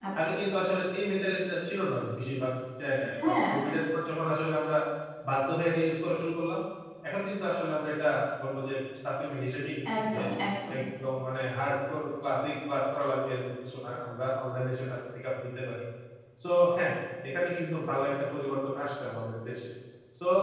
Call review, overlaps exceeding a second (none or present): none